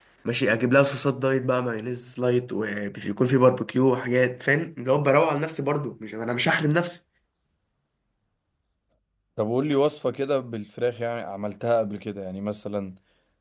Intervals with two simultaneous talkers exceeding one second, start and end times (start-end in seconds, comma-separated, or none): none